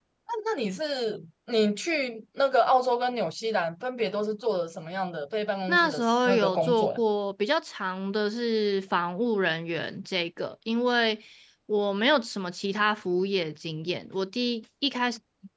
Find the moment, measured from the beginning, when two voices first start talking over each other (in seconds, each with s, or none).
5.7 s